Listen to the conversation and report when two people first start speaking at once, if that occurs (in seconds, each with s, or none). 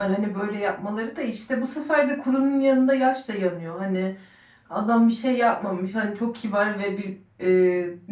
none